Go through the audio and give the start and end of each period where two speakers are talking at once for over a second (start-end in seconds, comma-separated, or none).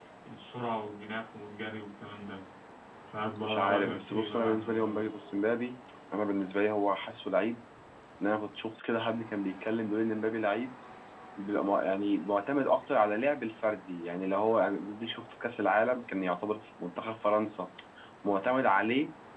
3.4-5.0